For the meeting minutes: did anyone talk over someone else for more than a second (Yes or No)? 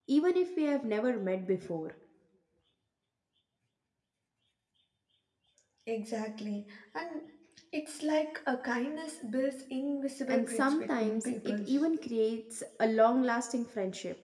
Yes